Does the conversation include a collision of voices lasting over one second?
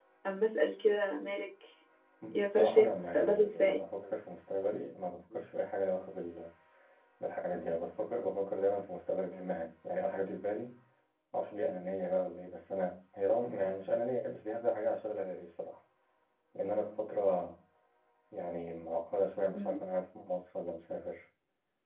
Yes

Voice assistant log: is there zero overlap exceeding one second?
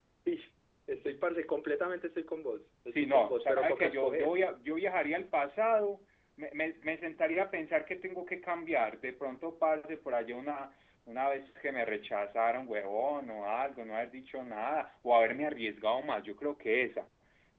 No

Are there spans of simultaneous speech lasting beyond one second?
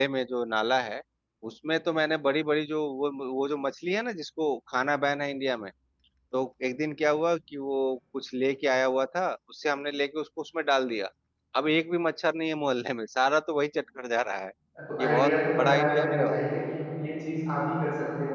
Yes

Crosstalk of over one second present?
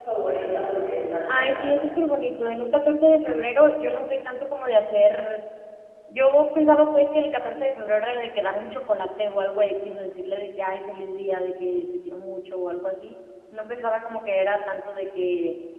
No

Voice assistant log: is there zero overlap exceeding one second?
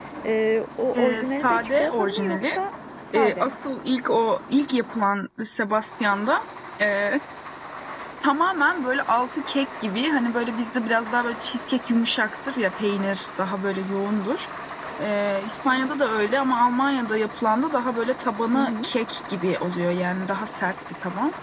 No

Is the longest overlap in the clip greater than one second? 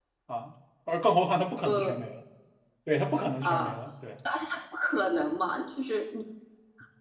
No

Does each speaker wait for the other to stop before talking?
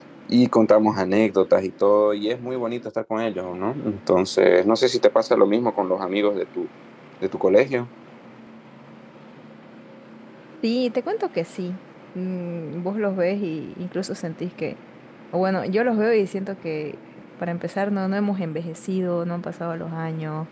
Yes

